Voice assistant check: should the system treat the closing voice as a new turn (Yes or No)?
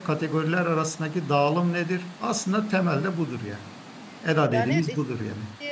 Yes